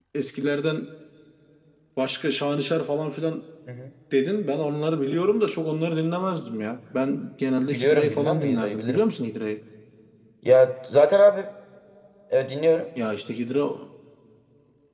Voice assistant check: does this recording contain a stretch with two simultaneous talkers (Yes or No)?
Yes